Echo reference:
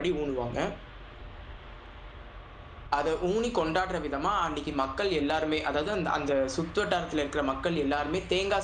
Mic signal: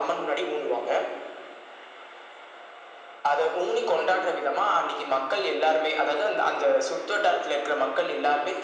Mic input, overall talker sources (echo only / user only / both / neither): echo only